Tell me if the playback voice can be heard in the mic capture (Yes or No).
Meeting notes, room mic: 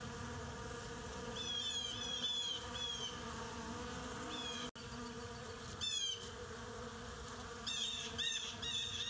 No